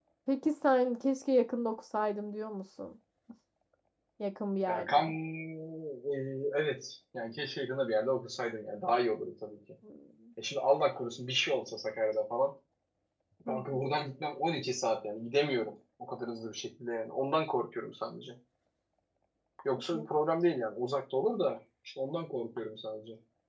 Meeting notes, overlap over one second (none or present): none